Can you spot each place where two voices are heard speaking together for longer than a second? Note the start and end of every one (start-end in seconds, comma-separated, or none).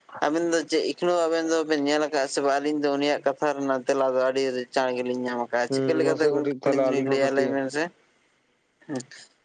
5.7-7.5